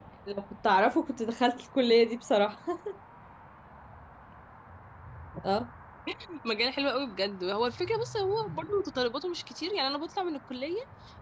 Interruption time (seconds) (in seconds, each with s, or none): none